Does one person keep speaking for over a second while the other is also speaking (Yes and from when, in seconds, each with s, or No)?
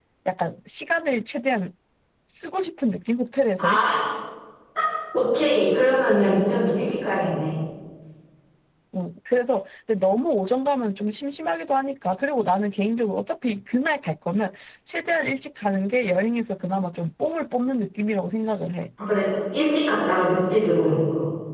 No